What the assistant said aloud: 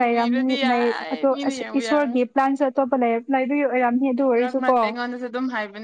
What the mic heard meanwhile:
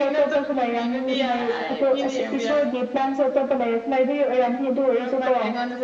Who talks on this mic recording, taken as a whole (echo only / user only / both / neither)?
echo only